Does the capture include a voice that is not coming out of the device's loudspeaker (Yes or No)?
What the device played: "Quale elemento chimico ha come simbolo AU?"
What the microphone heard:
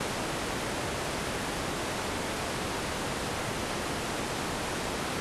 No